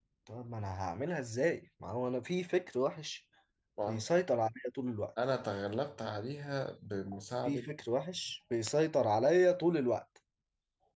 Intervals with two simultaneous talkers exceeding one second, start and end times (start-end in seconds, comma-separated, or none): none